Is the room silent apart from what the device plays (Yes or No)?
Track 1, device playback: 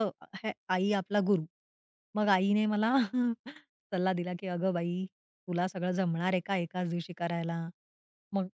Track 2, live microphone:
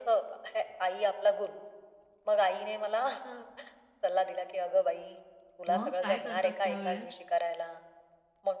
No